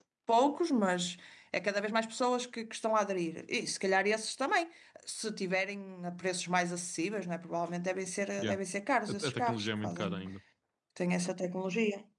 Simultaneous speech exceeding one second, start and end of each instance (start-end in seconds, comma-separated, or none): 9.1-10.3